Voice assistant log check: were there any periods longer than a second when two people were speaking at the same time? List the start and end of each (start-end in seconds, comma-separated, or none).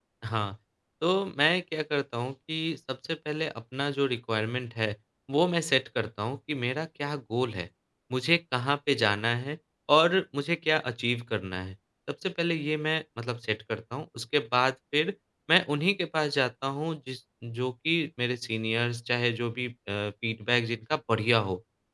none